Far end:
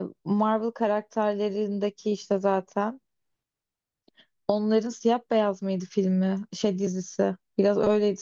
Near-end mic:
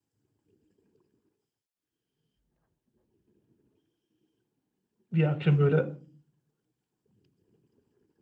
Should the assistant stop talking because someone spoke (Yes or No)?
Yes